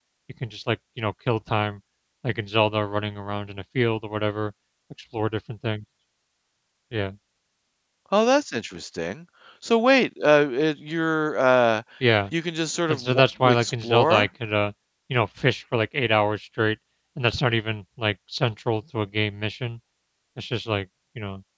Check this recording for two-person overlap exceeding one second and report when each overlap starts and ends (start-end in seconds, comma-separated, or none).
12.9-14.3